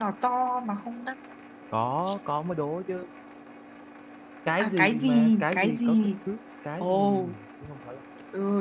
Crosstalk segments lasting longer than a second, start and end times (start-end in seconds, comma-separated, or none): 4.6-6.0